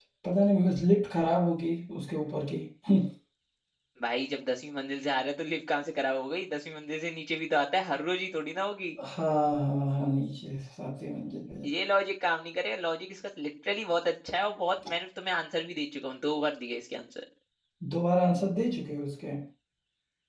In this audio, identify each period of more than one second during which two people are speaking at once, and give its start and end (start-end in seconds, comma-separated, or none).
none